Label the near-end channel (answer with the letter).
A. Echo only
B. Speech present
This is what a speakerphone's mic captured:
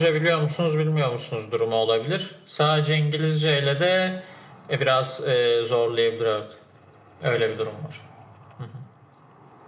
A